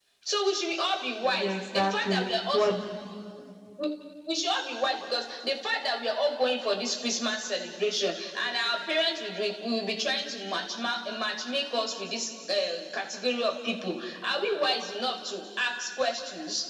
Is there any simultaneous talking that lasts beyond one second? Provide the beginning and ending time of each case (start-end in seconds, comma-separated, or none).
1.2-2.7